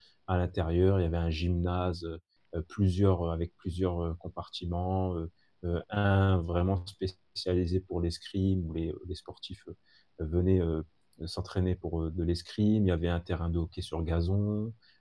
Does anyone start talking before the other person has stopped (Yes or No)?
No